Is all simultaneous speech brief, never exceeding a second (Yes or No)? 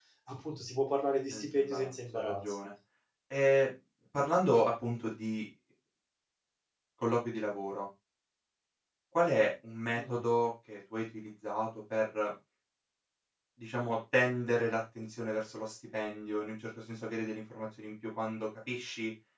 No